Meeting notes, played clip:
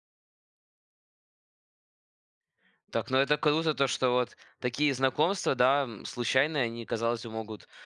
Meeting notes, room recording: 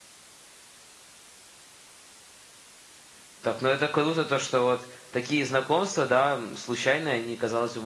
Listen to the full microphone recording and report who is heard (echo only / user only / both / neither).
echo only